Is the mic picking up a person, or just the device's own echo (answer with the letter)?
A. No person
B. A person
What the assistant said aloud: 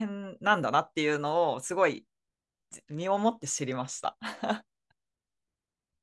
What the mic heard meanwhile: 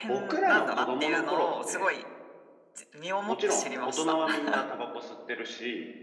B